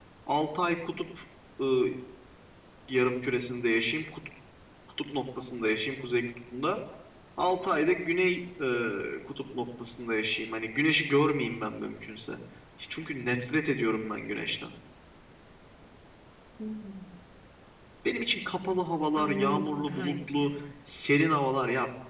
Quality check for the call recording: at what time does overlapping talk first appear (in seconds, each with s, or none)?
19.2 s